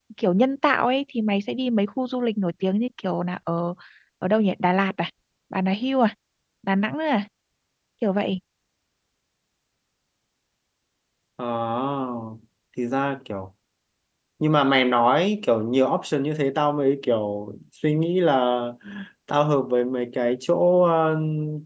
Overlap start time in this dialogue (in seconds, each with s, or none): none